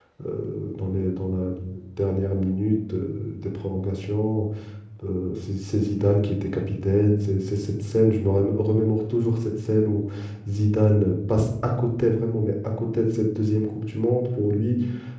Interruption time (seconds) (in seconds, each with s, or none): none